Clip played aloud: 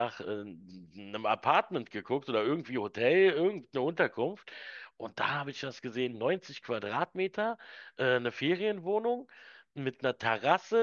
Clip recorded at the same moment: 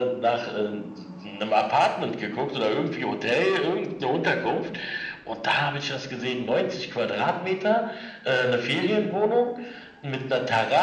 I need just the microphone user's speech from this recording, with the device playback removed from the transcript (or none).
none